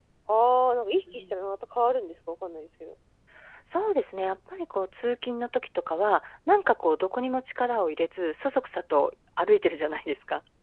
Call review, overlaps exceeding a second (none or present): none